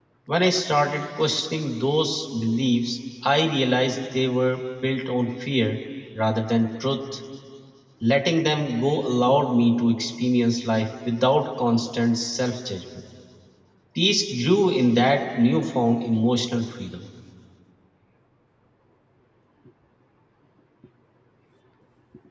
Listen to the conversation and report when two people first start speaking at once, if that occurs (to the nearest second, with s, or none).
none